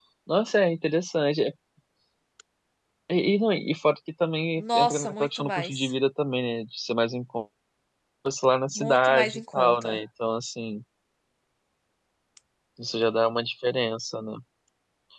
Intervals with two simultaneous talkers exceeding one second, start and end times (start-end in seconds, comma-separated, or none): 4.6-5.9, 8.8-10.0